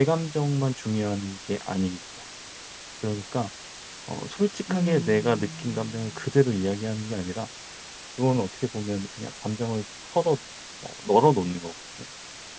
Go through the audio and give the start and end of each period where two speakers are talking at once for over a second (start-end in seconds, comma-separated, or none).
4.7-6.2